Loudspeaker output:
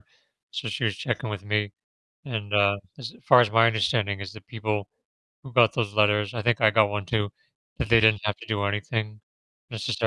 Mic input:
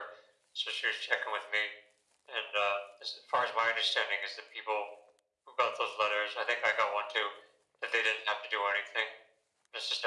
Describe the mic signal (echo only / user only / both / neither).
echo only